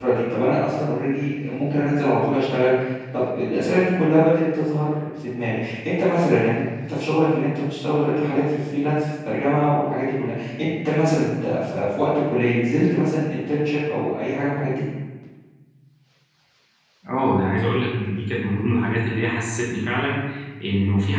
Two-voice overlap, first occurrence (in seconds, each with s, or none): none